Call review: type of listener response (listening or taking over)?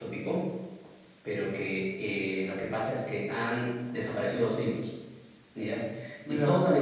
listening